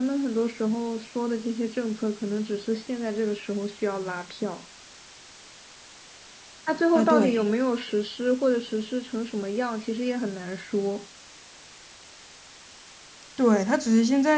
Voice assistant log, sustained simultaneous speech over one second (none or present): none